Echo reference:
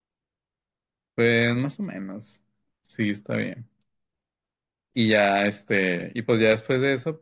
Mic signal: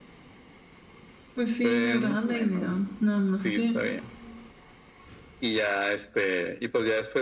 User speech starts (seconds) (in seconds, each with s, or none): 1.3 s